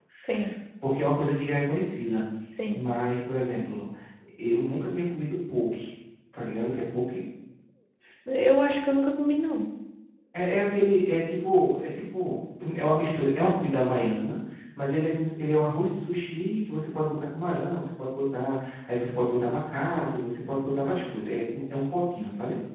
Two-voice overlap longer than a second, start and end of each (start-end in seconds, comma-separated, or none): none